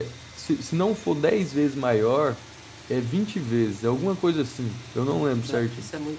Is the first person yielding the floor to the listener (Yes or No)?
Yes